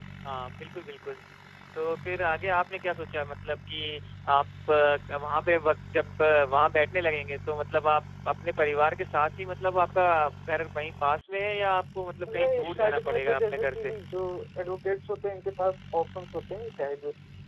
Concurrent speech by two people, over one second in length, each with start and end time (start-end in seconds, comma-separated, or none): 12.3-13.9